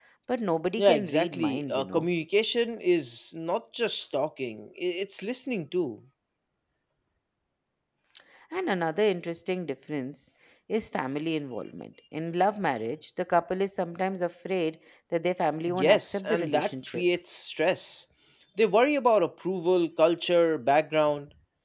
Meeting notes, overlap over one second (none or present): present